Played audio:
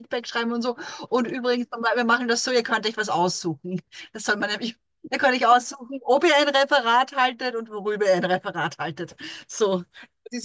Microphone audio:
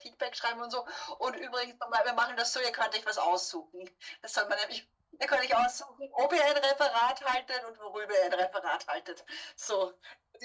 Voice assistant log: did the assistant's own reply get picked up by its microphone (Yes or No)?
Yes